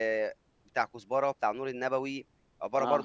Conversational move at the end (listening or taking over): listening